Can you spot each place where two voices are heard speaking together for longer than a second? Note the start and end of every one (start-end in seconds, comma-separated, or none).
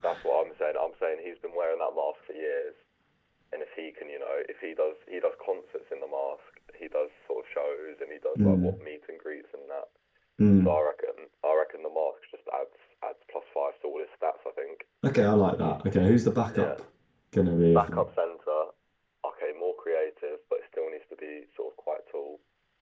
none